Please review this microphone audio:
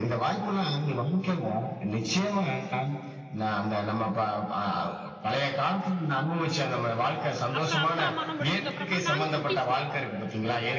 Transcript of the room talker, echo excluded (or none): அப்பறம் அப்பா, அம்மாலாம் முடிஞ்சக்கப்பறமா நாங்க குட்டிஸ்ங்க.